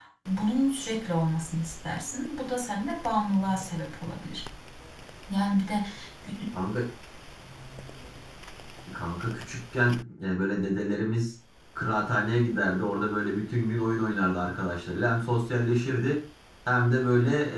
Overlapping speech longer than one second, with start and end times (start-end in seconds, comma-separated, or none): none